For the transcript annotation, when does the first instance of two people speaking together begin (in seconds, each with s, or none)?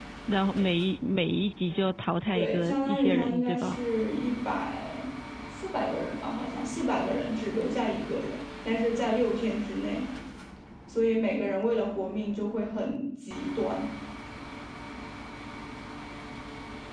2.3 s